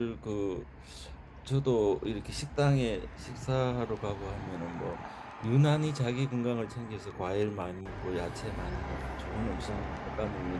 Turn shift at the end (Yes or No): No